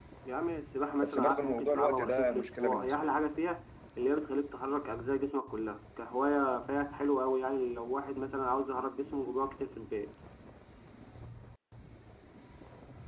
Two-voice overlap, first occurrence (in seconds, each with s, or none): 1.0 s